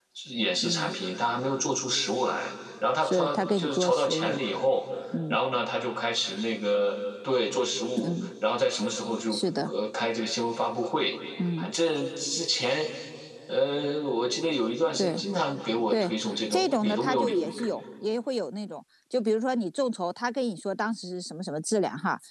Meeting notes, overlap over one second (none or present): present